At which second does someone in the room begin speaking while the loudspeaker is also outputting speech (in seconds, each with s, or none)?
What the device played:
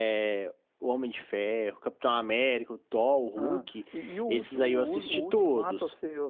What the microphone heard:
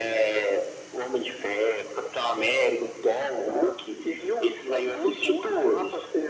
none